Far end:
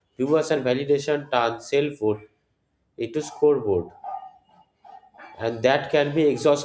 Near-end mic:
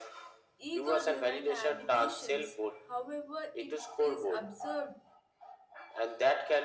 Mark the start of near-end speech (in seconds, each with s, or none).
0.6 s